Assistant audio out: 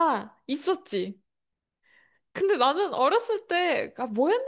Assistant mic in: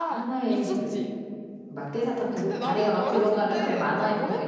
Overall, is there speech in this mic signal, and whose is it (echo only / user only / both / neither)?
both